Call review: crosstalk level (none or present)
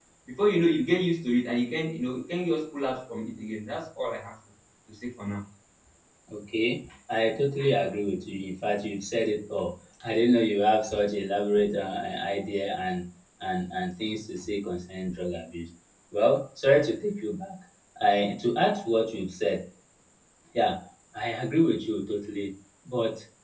none